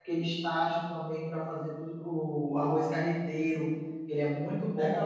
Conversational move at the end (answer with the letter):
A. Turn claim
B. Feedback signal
A